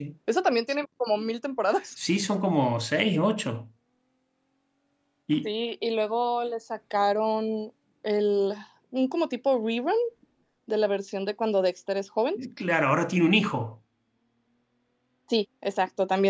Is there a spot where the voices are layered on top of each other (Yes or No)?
No